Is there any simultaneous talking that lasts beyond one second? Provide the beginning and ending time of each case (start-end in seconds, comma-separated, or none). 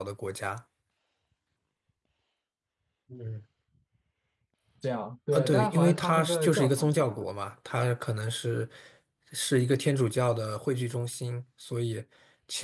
5.3-7.2